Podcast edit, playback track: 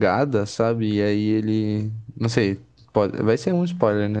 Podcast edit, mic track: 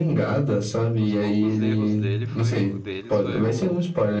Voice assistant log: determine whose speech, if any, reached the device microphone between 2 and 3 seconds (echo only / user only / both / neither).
both